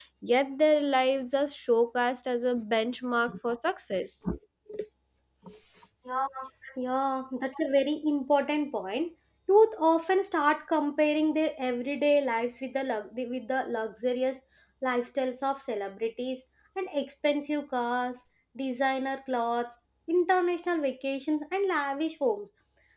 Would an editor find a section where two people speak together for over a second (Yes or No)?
No